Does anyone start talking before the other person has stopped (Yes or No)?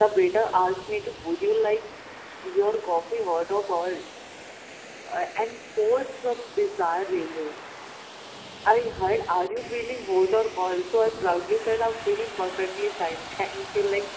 No